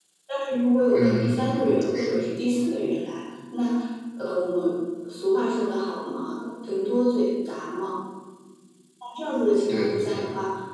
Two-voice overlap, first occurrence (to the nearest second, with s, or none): 1 s